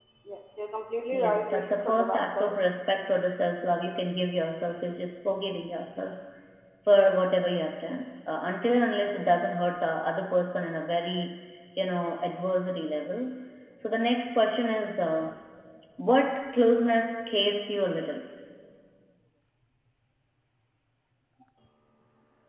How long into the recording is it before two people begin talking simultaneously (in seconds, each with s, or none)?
1.1 s